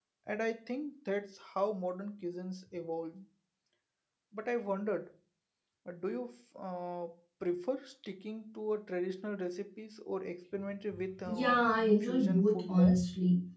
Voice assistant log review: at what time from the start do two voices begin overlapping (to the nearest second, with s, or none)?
11 s